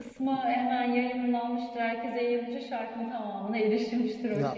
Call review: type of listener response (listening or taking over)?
taking over